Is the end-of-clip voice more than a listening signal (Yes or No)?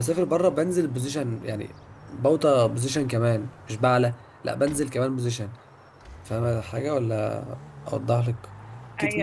Yes